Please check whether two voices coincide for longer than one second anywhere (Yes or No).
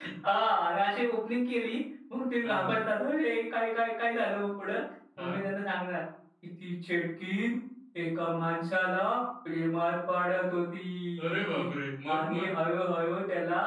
No